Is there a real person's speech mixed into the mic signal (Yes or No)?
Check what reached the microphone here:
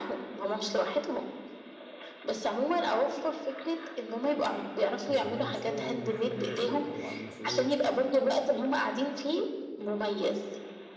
Yes